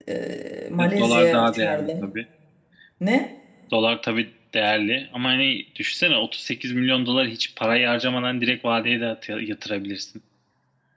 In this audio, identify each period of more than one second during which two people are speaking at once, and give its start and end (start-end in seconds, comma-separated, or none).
0.8-2.1